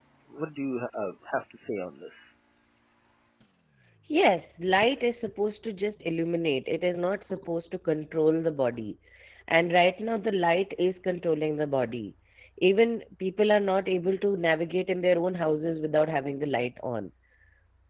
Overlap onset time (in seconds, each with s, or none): none